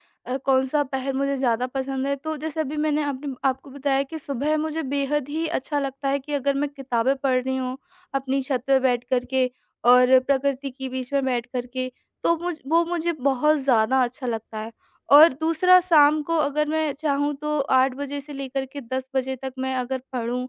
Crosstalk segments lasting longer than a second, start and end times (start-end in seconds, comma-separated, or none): none